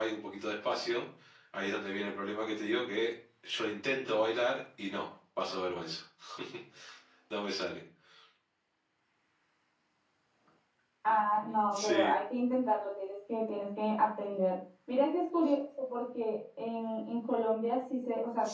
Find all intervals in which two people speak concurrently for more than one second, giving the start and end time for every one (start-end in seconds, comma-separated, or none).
none